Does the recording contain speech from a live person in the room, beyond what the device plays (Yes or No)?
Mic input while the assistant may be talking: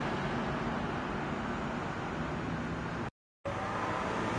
No